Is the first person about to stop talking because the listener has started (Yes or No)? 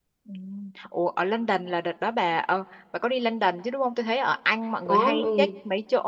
No